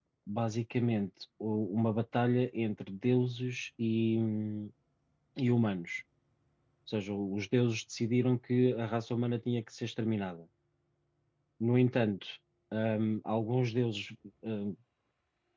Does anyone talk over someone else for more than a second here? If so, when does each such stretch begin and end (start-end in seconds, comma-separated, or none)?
none